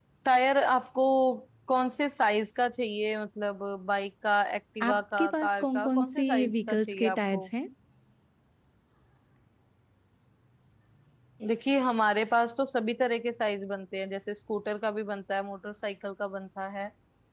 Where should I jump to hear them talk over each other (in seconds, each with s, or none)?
4.8 s